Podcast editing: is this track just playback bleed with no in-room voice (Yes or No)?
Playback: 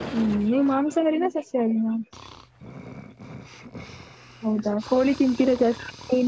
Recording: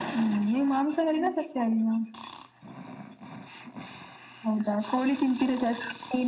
Yes